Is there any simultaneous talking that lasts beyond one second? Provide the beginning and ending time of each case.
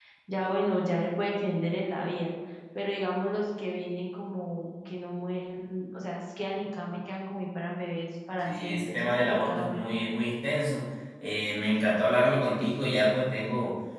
8.4-9.8

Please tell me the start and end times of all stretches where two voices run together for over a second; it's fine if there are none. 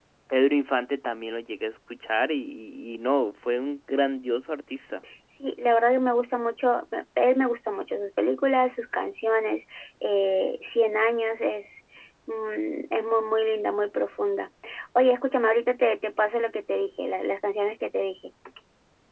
none

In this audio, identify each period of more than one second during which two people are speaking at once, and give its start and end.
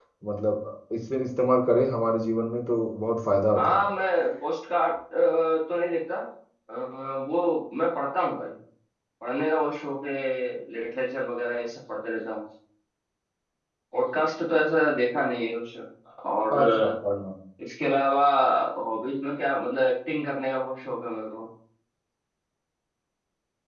none

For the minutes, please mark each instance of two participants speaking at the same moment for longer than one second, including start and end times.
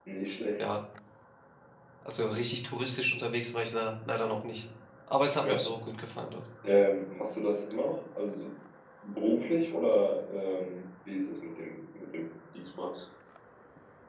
none

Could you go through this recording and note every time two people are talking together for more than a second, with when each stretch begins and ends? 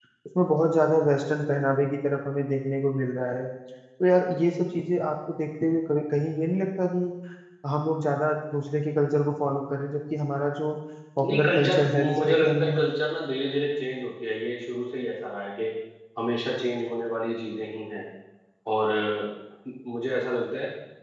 11.2-12.8

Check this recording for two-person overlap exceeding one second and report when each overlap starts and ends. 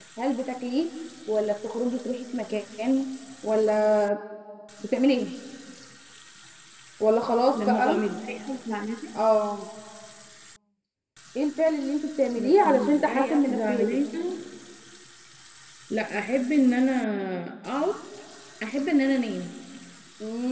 12.4-14.0

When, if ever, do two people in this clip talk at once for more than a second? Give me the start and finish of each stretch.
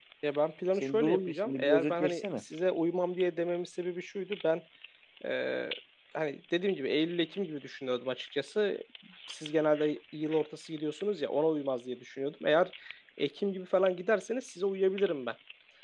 0.8-2.4

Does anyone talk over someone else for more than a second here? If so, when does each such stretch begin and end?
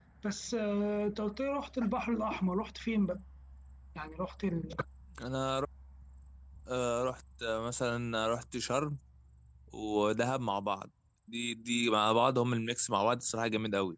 none

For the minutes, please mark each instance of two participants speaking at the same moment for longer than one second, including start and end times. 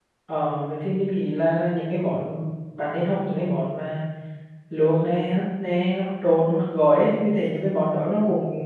none

